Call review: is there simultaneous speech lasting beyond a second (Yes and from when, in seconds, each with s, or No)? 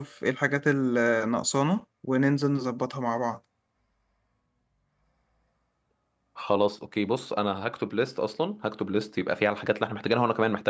No